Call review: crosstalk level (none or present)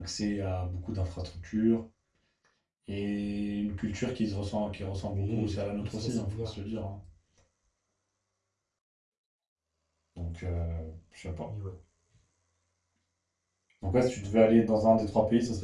present